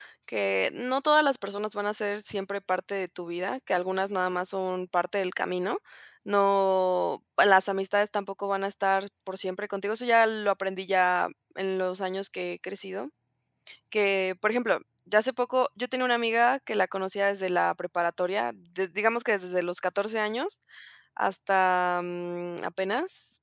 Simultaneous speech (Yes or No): No